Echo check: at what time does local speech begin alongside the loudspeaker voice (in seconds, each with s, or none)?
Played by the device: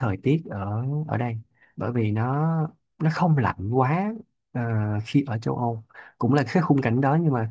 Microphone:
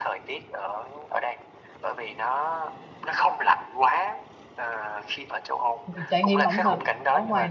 5.8 s